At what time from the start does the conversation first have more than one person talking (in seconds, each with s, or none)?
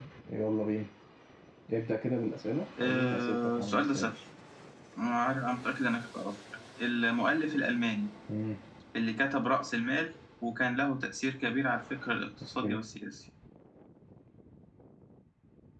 2.8 s